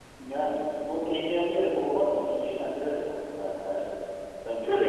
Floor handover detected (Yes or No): No